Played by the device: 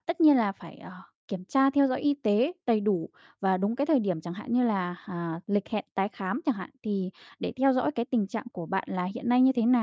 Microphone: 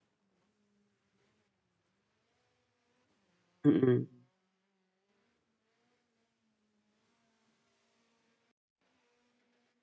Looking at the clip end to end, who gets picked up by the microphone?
user only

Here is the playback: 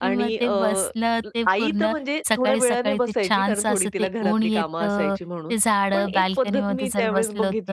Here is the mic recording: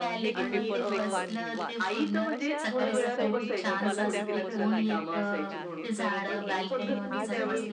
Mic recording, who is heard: both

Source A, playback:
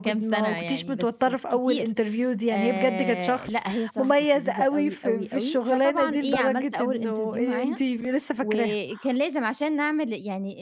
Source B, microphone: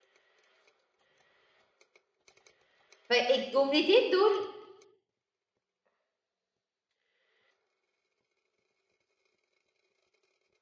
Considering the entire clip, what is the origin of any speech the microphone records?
user only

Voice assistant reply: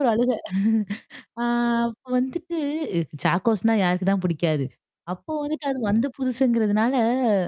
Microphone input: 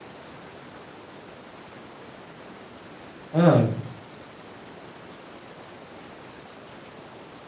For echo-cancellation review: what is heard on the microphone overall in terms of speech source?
user only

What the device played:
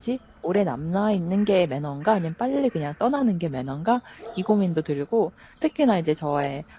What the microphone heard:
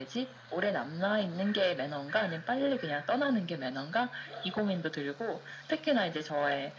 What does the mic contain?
echo only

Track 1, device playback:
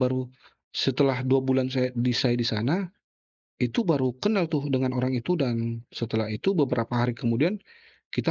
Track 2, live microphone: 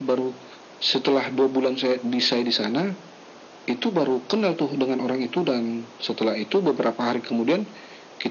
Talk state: echo only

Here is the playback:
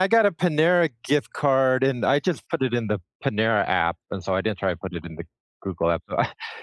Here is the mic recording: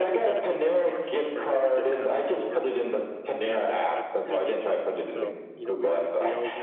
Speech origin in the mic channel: both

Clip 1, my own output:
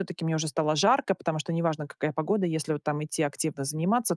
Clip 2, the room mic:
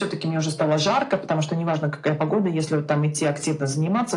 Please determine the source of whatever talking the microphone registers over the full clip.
echo only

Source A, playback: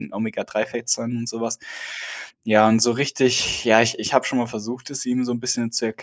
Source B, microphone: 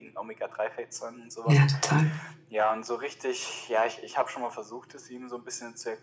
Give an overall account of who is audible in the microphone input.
both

